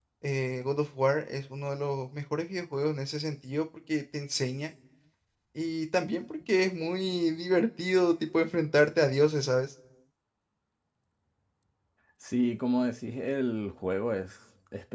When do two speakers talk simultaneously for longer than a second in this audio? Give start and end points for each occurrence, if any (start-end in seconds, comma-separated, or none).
none